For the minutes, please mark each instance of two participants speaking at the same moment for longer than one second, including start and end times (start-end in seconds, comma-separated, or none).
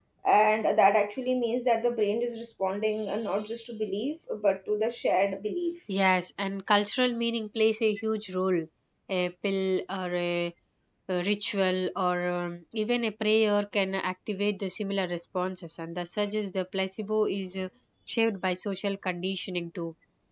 none